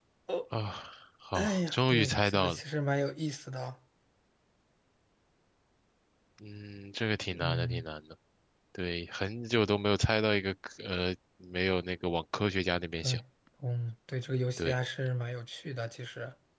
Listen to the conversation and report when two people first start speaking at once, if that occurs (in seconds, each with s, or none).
1.3 s